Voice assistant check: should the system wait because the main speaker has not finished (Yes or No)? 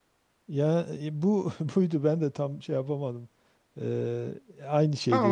No